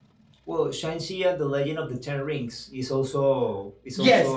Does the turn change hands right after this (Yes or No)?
Yes